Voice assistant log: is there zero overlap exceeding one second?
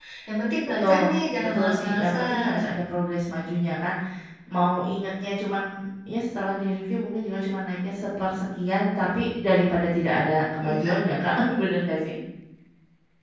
No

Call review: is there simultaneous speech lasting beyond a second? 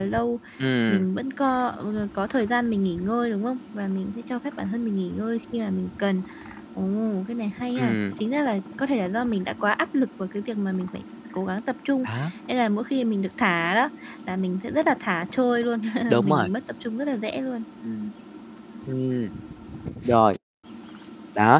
No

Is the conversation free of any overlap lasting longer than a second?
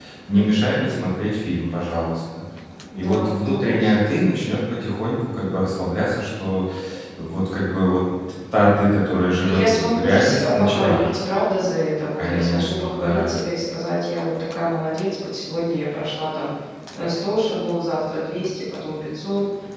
No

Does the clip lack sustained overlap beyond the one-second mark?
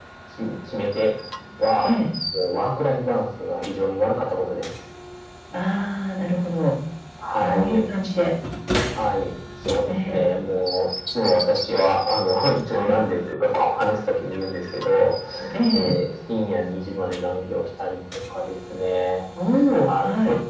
Yes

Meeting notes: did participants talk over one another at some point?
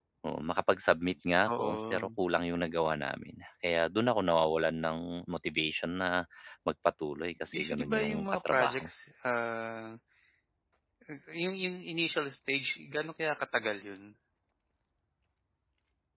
Yes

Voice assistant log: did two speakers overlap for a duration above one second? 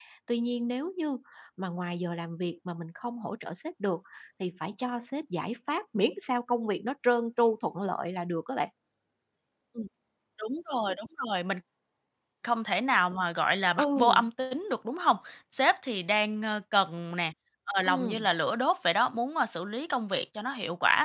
No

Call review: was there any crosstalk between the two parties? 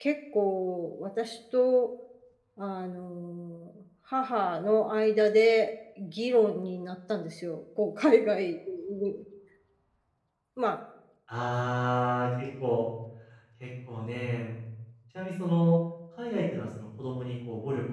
No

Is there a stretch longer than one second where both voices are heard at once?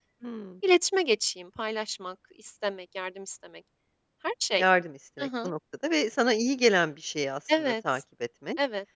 No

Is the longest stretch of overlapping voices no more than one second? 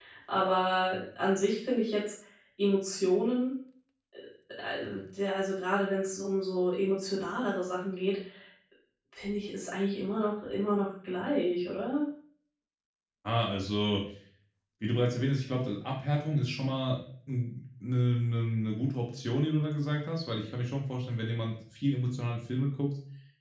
Yes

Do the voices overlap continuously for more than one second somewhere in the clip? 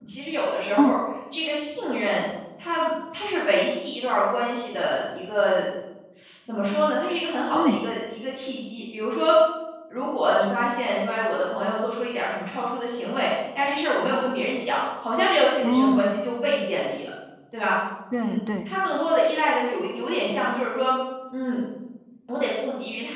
No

